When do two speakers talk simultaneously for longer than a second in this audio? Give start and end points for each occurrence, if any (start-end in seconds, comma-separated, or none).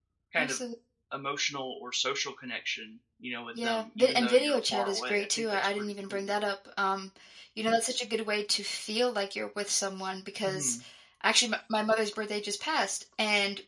3.6-6.3